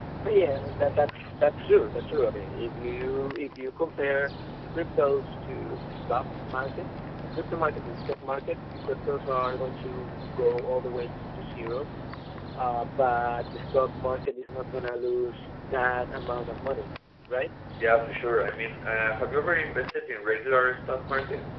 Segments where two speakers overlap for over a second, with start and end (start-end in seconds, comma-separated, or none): none